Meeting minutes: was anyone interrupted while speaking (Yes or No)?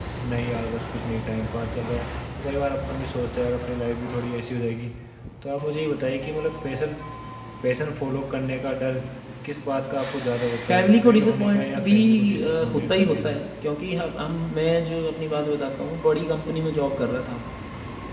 Yes